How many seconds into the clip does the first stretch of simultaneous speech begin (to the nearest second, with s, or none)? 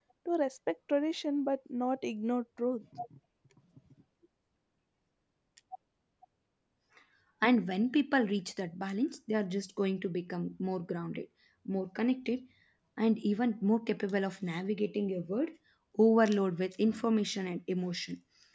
none